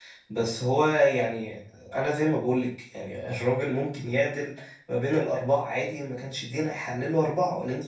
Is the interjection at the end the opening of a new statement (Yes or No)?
Yes